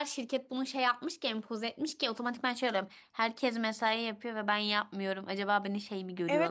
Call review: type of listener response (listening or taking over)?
taking over